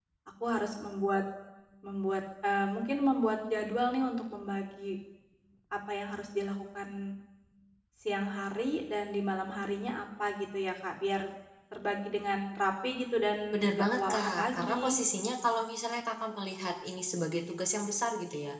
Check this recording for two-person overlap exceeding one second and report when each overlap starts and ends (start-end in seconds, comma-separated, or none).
13.5-14.8